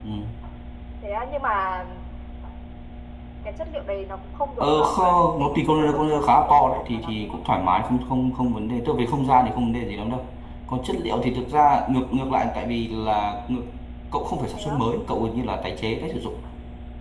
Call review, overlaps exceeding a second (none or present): present